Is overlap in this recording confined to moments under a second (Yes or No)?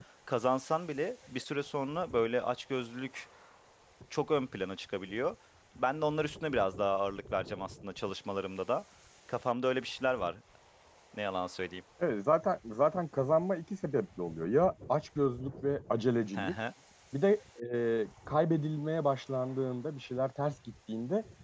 Yes